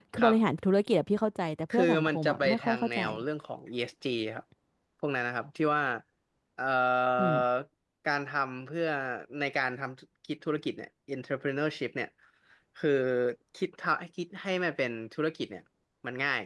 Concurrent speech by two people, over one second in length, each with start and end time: 1.7-3.0

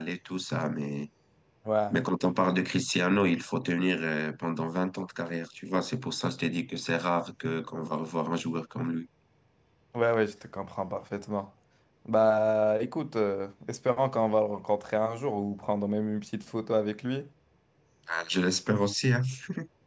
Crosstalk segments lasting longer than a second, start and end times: none

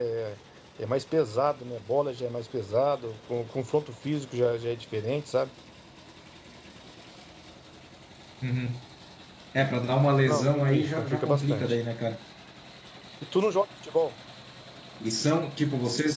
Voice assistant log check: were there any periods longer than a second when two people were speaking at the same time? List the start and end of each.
10.2-11.8

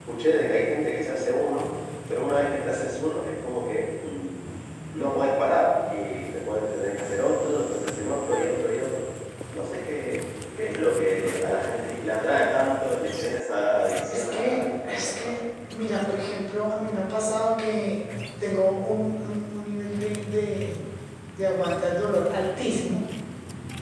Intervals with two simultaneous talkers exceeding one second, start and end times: 14.1-15.3

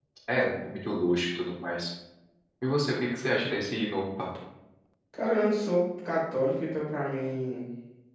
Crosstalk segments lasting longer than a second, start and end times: none

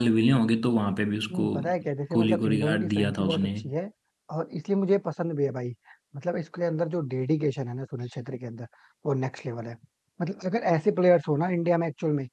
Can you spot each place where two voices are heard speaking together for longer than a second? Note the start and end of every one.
2.1-3.5

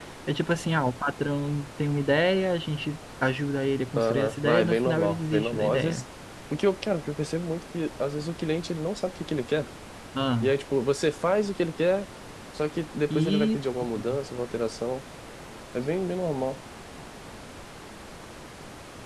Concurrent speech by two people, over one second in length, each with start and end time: 4.0-6.0

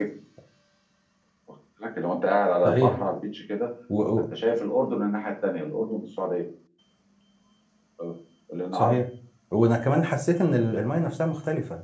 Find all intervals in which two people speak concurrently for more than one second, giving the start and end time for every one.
none

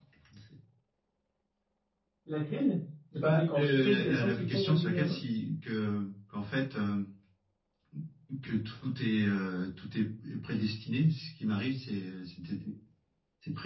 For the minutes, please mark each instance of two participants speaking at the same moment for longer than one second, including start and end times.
3.2-5.2

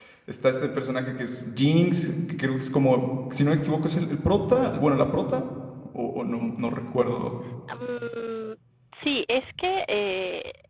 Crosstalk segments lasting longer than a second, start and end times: none

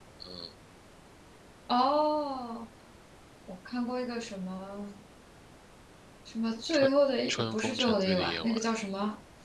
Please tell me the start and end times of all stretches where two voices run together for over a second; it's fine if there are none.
7.3-8.6

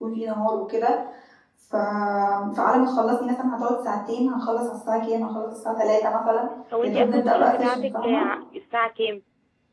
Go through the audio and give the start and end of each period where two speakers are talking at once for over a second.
6.8-8.3

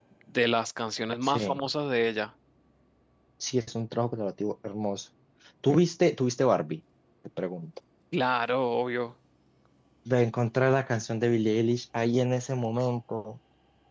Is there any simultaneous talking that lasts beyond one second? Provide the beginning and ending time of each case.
none

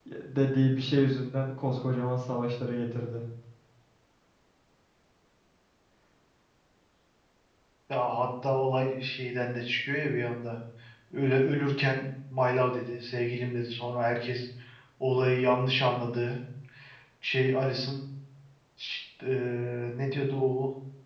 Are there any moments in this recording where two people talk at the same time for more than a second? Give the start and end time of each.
none

